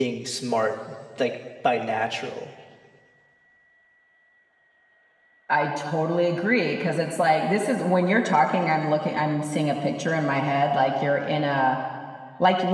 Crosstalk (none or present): none